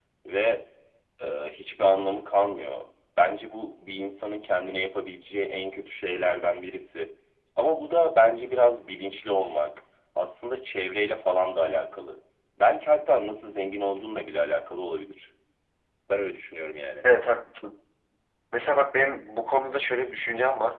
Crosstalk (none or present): none